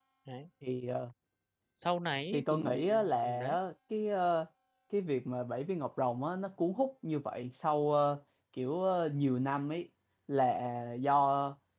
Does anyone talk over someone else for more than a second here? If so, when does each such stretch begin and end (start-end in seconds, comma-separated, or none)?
2.3-3.5